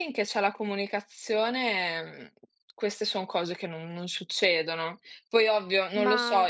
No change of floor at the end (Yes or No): Yes